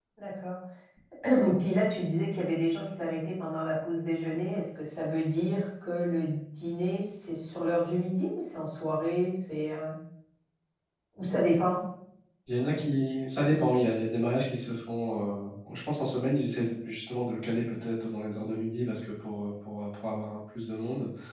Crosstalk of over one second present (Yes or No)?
No